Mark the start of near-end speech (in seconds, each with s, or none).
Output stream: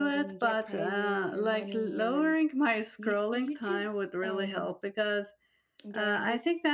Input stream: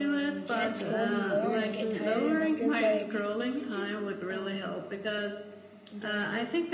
0.5 s